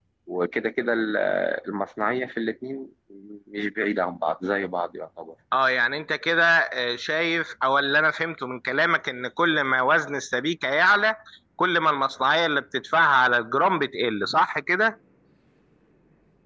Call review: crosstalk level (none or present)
none